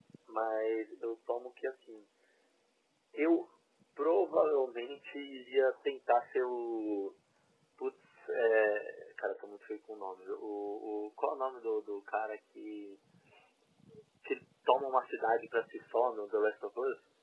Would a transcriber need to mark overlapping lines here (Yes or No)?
No